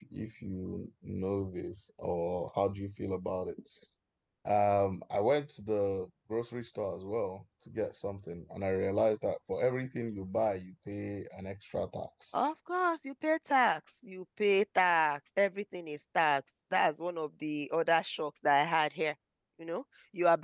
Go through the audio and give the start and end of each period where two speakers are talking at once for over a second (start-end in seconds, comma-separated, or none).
none